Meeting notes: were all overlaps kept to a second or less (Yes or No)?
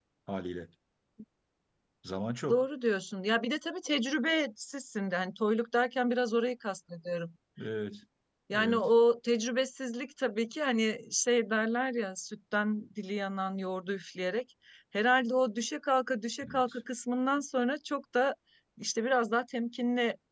Yes